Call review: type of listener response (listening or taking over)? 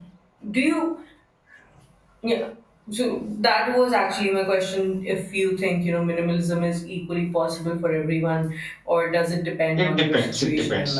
taking over